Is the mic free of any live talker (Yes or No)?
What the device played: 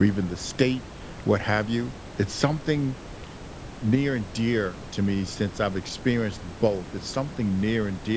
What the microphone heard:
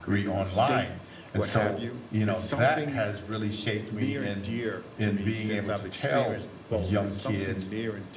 No